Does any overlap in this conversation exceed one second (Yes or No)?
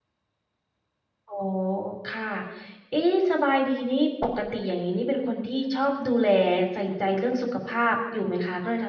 No